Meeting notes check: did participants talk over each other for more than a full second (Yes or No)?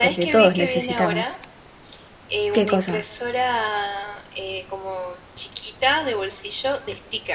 Yes